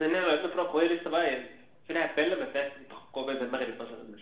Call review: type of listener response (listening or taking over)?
taking over